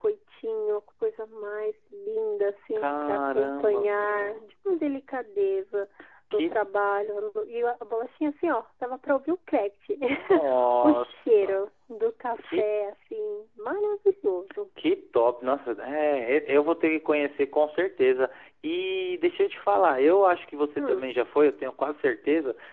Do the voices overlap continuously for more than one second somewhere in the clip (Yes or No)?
Yes